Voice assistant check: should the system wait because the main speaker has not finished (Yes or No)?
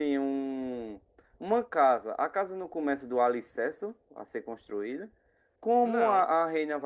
Yes